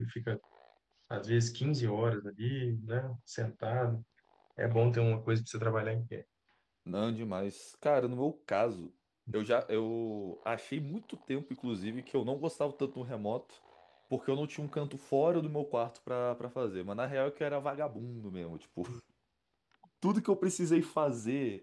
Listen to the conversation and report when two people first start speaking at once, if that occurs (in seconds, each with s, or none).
none